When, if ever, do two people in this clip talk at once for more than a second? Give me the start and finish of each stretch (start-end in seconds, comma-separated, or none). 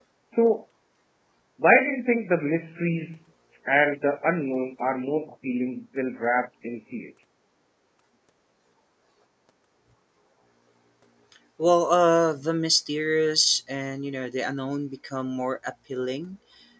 none